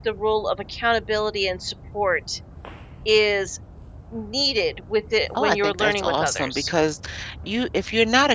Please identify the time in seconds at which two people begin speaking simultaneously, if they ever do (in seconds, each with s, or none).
5.3 s